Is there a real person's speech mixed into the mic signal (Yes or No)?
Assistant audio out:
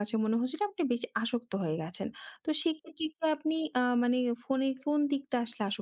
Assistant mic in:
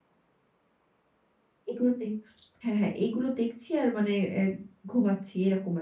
Yes